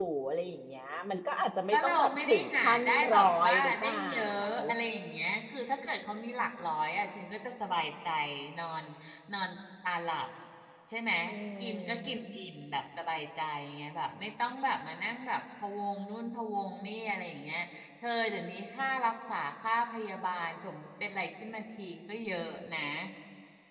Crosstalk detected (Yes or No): Yes